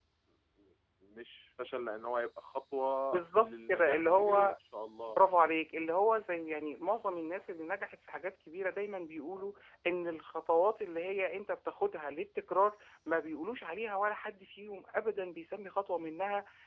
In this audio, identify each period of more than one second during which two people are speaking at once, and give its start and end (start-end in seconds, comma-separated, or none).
3.1-4.5